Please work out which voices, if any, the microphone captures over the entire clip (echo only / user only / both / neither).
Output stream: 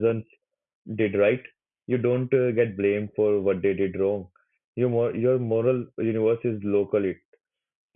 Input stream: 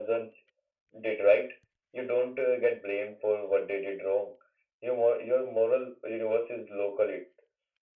echo only